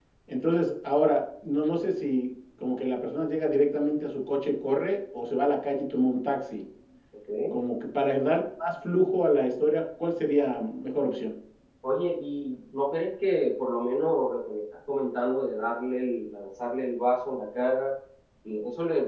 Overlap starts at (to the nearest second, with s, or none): none